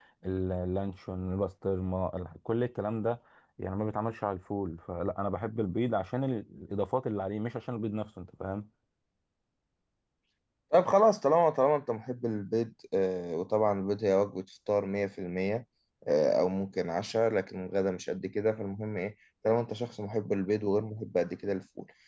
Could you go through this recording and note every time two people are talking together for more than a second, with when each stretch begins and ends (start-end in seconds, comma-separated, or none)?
none